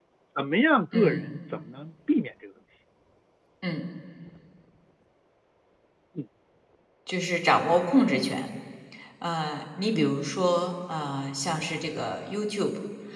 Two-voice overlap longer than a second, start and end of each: none

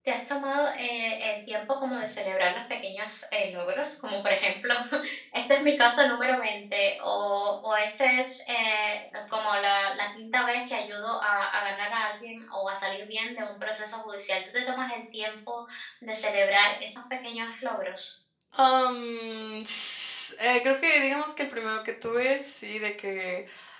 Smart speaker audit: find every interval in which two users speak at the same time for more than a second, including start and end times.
none

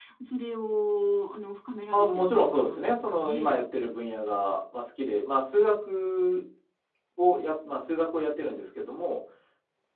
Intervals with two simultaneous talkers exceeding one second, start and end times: 1.9-3.6

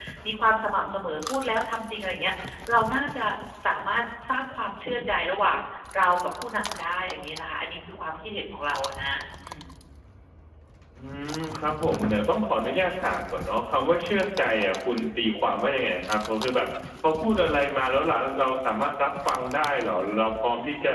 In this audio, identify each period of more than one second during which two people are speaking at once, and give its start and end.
none

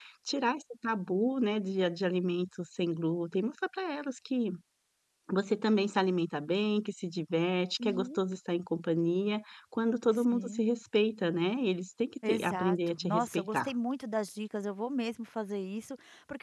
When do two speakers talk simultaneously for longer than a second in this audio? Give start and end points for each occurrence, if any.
12.3-13.7

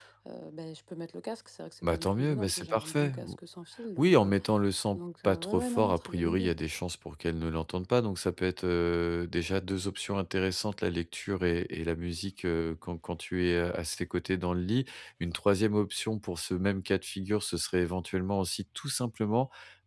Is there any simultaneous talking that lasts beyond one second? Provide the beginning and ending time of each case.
1.8-3.1, 5.0-6.5

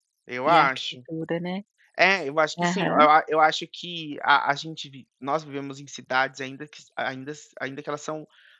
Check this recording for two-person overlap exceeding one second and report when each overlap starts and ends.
none

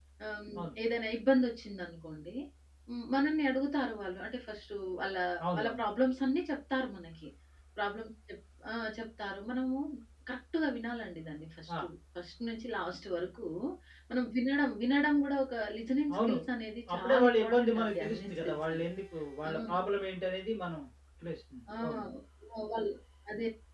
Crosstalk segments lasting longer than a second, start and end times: 16.9-18.8

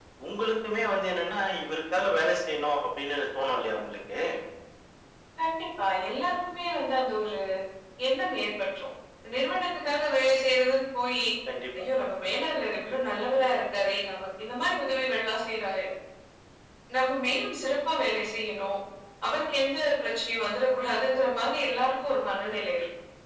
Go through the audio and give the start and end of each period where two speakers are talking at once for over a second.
none

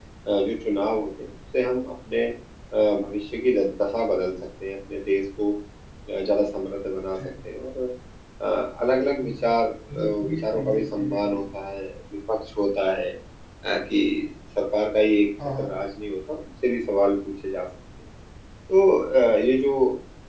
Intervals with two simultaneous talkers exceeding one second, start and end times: 9.9-11.4

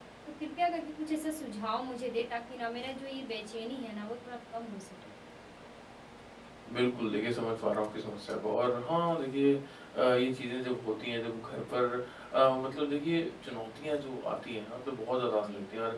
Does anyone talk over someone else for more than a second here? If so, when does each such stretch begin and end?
none

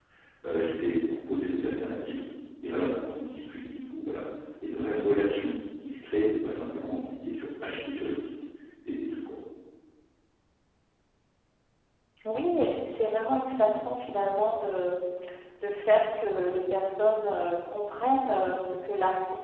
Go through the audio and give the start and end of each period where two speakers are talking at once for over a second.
none

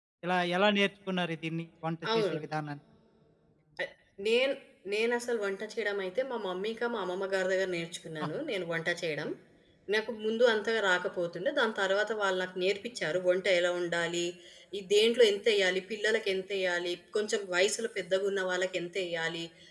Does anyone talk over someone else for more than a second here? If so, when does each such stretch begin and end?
none

